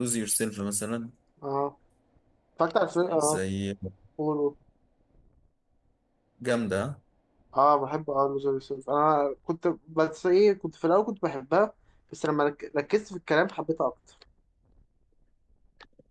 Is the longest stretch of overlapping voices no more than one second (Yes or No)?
Yes